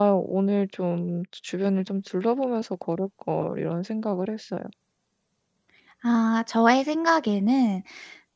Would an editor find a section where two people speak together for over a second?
No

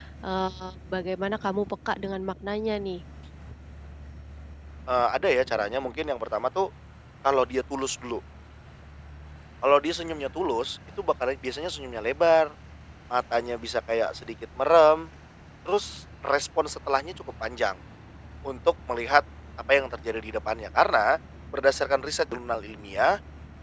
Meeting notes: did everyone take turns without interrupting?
Yes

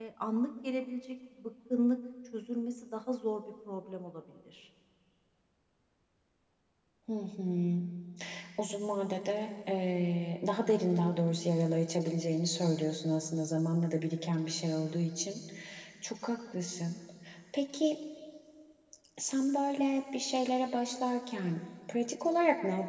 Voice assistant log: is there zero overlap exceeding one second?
Yes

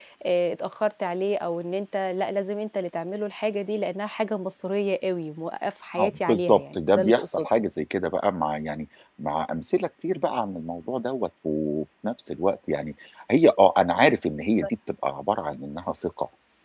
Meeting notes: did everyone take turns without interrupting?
No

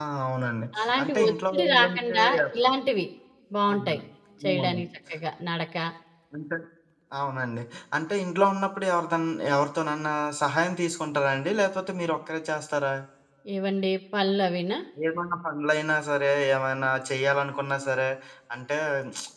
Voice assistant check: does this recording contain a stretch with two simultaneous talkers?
Yes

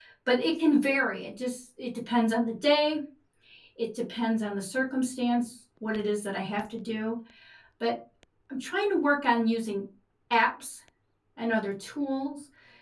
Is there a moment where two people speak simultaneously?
No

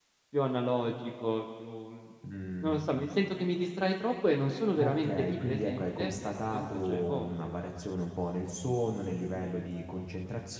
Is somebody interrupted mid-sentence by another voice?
Yes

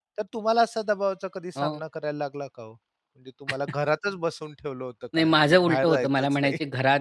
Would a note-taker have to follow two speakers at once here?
Yes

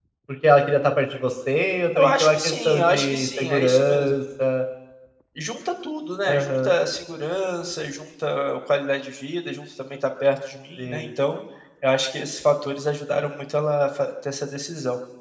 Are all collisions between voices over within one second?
No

